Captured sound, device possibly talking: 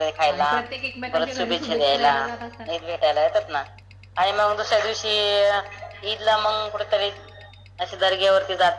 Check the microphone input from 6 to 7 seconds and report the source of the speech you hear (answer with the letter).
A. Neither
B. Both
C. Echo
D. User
C